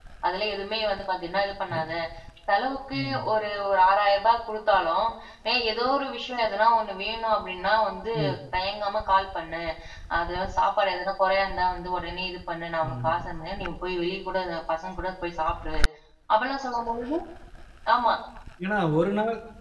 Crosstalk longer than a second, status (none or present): none